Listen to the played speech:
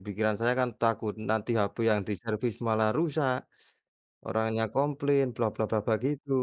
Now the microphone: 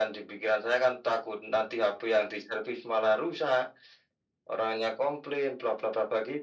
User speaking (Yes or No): No